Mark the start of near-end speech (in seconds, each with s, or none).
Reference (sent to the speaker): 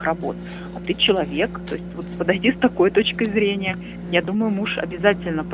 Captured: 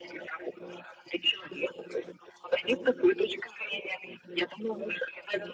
none